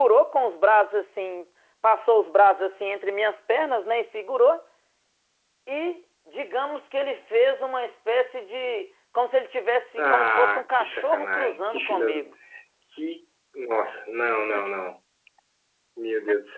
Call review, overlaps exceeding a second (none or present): present